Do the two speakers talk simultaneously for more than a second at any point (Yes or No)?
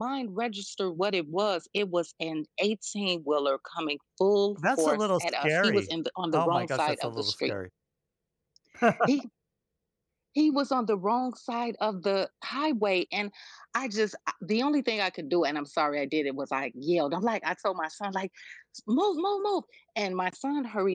Yes